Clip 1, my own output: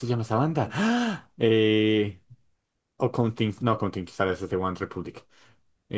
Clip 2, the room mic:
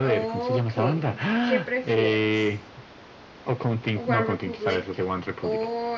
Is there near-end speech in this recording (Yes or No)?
Yes